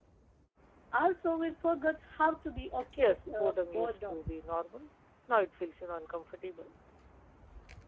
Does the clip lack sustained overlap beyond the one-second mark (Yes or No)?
No